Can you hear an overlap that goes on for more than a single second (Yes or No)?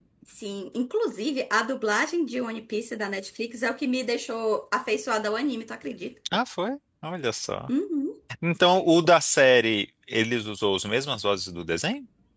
No